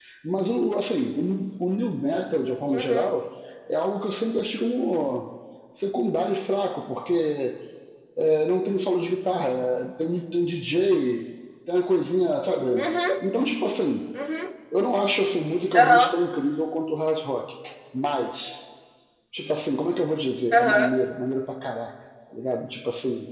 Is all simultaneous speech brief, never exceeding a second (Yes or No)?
Yes